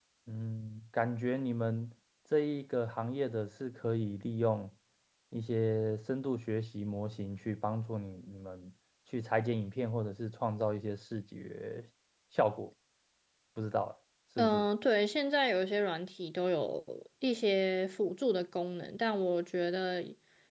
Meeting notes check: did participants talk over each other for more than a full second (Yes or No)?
No